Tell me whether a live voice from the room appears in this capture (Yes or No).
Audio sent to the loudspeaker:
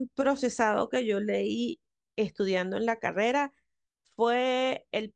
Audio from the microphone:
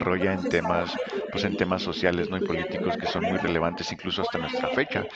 Yes